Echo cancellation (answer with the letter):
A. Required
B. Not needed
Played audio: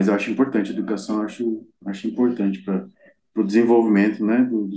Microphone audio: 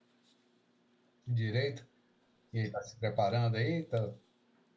B